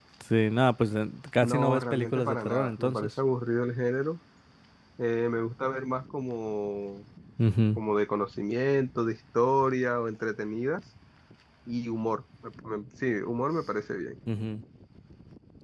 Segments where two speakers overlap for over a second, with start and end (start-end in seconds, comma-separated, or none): 1.4-3.1